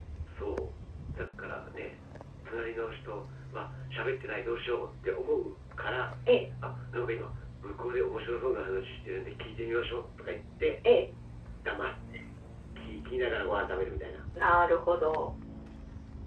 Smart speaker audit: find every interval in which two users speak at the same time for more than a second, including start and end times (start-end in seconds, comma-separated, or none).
none